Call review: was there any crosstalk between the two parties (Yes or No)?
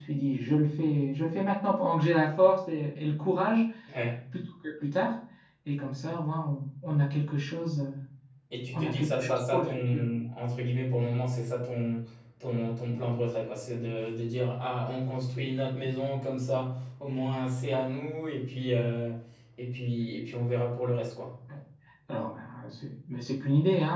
Yes